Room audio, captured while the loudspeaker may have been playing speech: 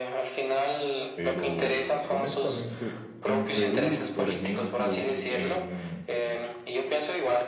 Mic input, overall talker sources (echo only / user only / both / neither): both